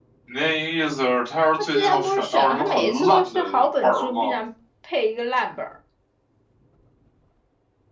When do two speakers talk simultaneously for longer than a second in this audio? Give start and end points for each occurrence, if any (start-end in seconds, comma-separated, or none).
1.6-4.4